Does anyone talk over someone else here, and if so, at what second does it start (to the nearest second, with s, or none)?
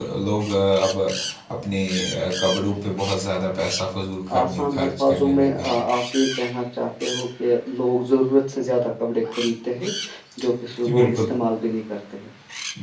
4 s